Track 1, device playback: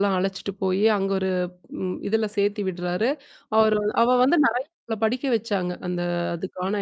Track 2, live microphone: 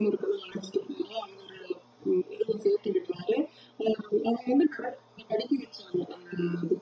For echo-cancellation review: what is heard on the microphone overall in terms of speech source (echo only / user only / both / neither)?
echo only